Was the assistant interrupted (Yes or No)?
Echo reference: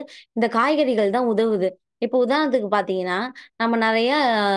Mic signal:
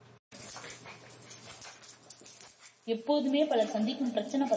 Yes